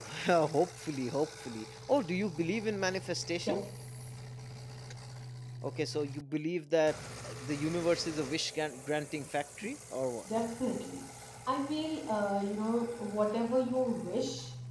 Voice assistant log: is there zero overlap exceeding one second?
Yes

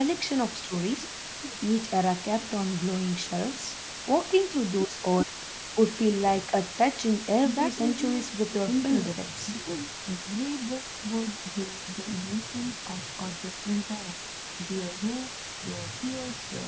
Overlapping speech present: Yes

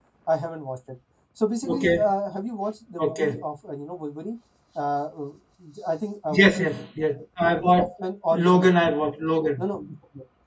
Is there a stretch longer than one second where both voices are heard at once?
No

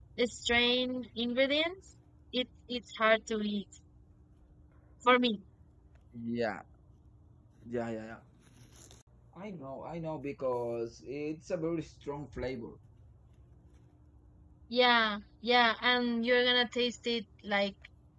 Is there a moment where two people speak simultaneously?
No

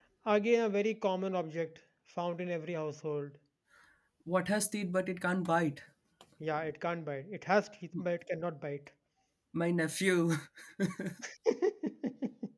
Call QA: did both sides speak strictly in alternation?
Yes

